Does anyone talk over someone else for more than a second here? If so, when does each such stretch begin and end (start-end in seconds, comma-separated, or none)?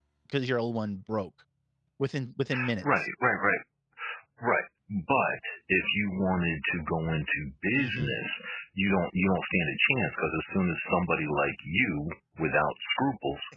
none